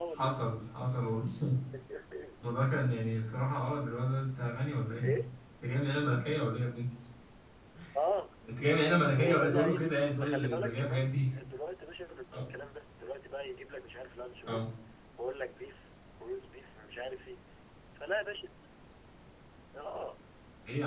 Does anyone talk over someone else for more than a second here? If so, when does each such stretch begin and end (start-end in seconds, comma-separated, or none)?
9.2-11.2